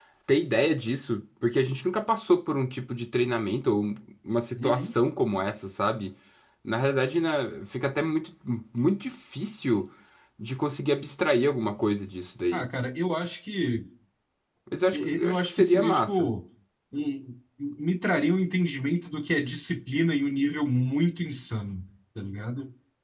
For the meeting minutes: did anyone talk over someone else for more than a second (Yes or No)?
Yes